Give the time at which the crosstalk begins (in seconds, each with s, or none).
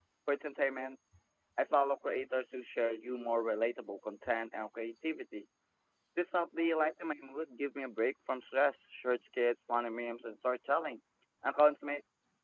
none